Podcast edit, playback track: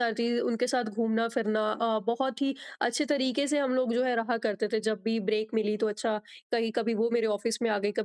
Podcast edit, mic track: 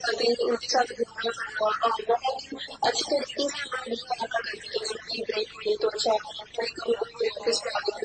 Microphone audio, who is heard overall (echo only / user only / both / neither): echo only